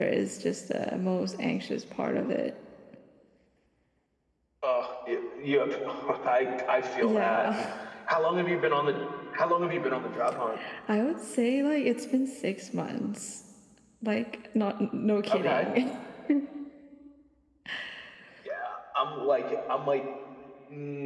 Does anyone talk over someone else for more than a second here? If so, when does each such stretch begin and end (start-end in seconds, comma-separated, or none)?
none